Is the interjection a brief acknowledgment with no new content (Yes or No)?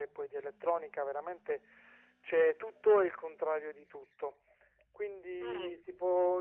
Yes